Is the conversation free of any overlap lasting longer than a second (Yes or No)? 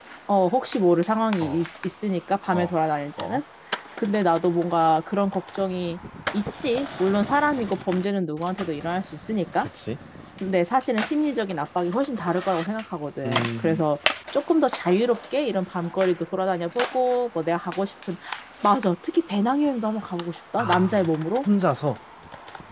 Yes